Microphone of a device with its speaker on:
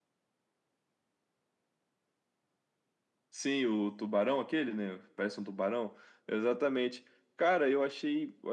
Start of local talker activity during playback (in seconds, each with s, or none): none